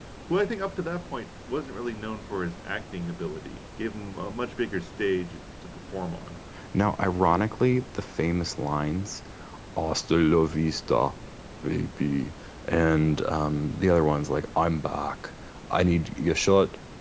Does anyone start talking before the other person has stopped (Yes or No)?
No